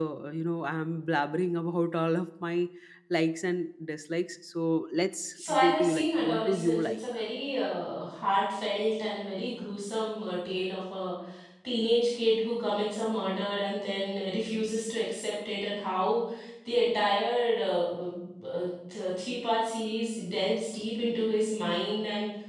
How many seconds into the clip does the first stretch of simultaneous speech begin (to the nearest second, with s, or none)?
5 s